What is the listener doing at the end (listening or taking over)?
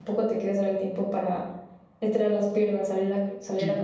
listening